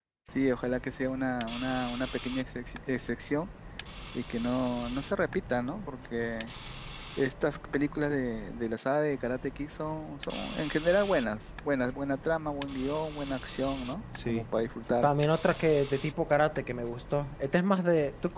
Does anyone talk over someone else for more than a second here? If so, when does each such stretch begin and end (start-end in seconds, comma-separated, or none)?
none